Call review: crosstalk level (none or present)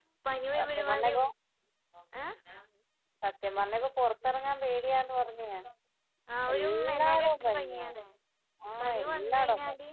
present